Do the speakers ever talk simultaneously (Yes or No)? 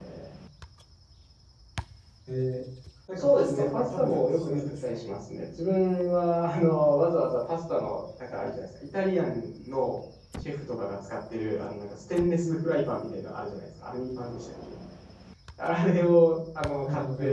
Yes